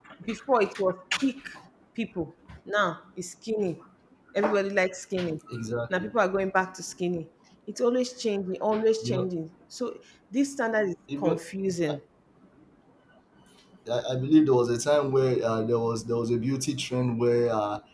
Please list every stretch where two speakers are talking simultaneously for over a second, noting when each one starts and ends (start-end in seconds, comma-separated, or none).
none